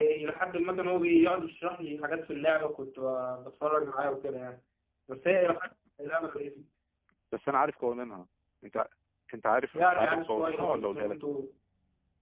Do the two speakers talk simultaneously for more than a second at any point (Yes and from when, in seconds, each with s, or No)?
Yes, from 9.7 s